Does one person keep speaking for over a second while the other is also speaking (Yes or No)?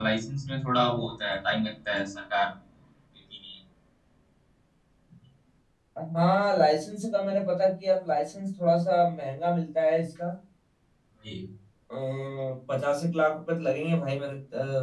No